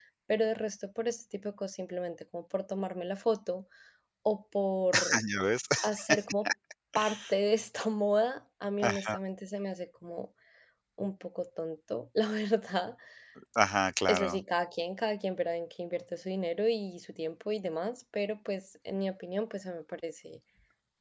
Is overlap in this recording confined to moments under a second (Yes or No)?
Yes